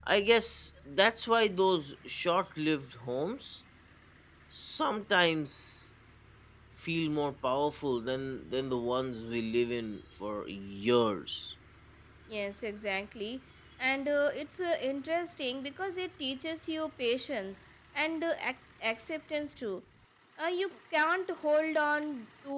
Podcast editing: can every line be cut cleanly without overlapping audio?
Yes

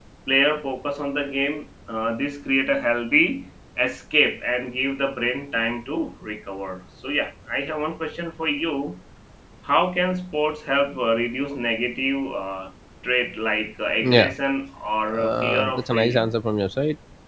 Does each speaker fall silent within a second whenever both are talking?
No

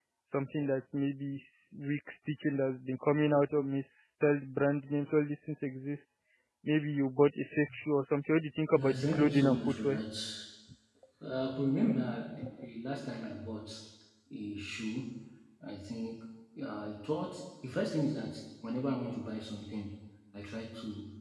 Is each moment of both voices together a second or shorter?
No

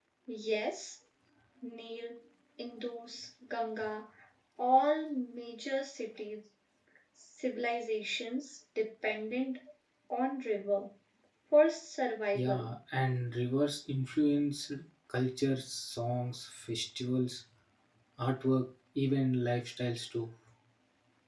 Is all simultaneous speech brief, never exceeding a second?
Yes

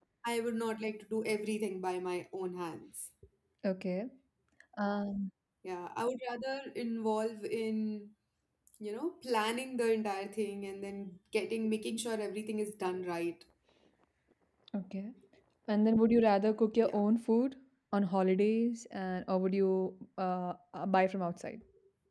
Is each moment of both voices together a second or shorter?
Yes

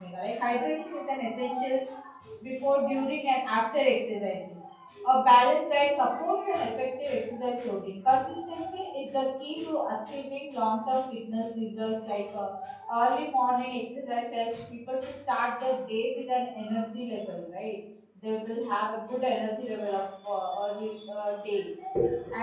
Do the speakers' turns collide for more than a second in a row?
No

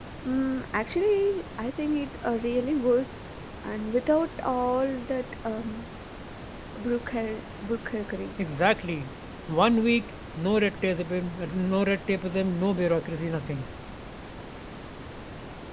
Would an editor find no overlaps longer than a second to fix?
Yes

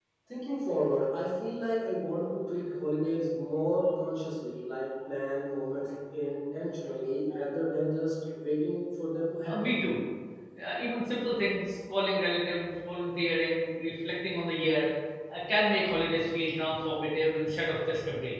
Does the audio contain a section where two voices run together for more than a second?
No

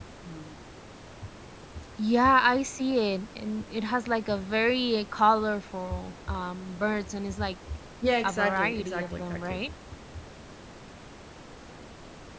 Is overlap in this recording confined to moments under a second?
No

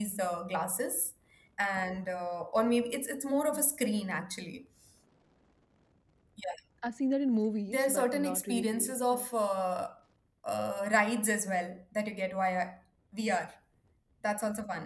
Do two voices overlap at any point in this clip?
Yes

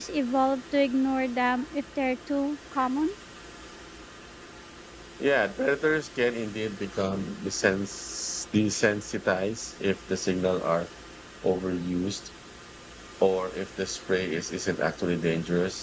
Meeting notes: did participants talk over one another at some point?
No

